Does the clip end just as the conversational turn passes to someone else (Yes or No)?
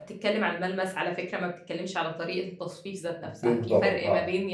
No